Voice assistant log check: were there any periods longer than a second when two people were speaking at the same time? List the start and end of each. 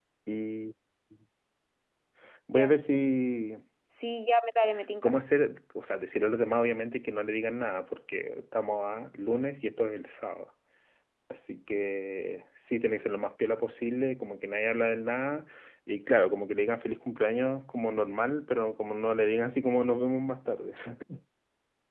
none

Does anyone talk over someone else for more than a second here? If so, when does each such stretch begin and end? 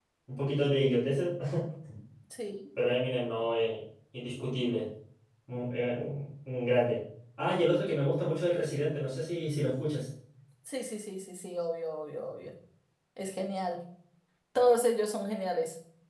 none

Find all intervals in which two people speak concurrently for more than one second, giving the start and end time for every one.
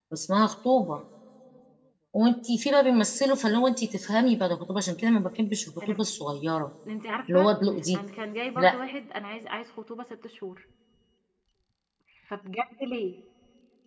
none

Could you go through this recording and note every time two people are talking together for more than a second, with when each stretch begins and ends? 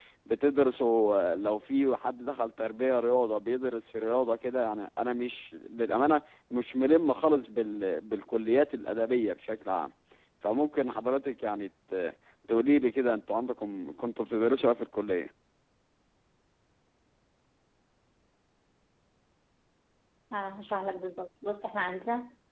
none

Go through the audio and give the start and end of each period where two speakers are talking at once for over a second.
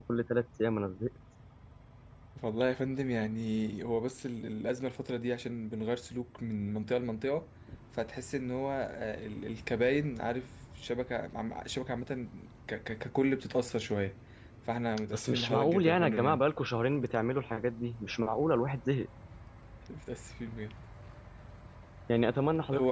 15.1-16.4

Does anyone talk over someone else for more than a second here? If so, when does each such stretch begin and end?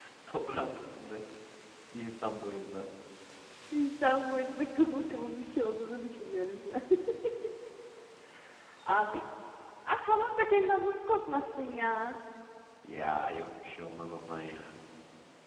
none

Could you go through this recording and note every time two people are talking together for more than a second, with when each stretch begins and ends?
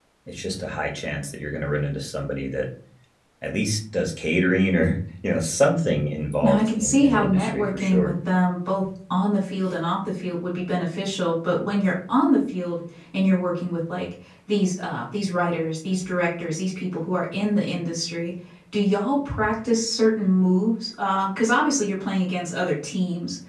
6.4-8.1

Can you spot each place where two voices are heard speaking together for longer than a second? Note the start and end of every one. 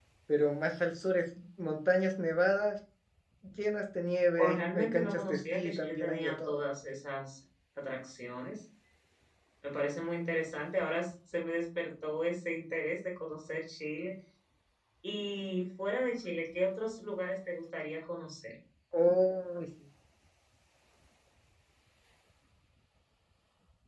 4.4-6.6

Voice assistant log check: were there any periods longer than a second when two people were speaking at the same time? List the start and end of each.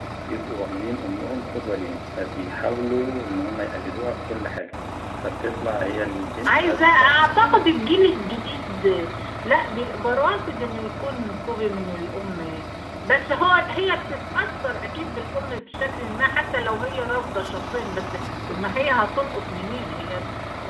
6.5-7.7

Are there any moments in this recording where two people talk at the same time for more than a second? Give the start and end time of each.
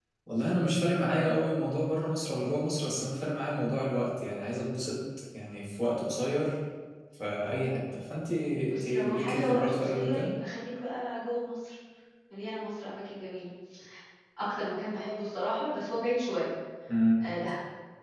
8.7-10.3

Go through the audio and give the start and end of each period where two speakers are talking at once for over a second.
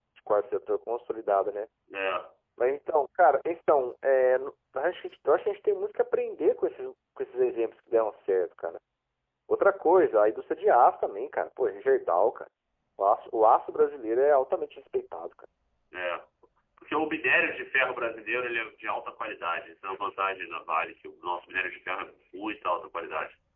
none

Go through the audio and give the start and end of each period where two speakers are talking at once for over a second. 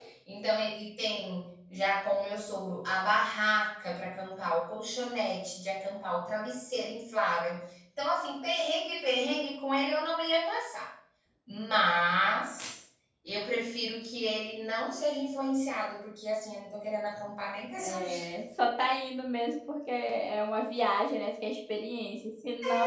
none

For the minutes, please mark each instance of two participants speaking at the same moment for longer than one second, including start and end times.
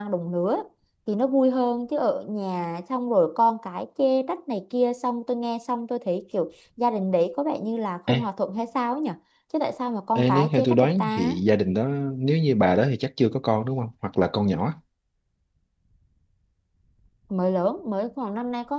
10.2-11.3

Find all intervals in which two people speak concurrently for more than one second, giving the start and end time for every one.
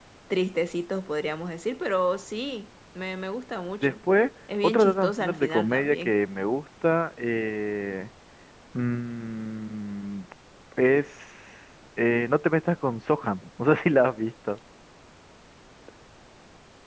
4.6-6.1

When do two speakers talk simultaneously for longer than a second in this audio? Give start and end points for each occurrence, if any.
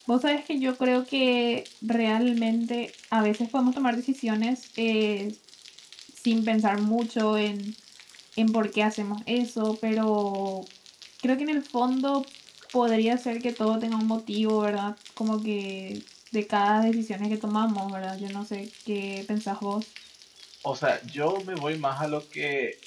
none

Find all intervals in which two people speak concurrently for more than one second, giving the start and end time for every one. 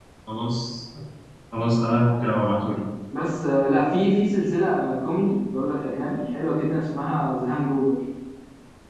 none

